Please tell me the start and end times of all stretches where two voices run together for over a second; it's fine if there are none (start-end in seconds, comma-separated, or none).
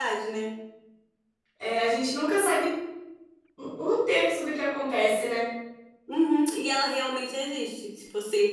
none